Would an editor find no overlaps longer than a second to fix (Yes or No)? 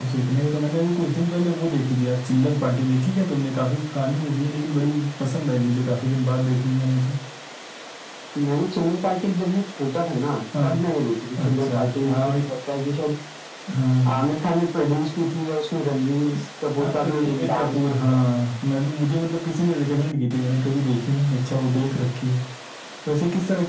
No